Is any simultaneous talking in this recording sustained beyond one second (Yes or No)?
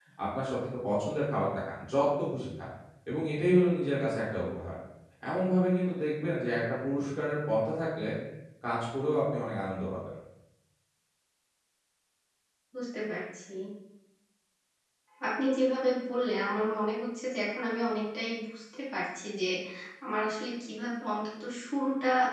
No